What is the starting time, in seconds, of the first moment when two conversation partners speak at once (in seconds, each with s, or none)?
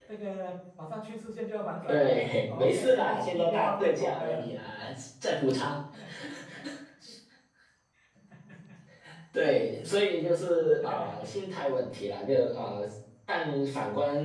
1.8 s